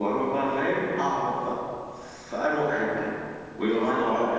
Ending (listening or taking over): listening